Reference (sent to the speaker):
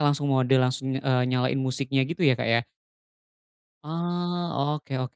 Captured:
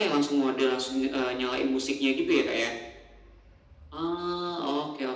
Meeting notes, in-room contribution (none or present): none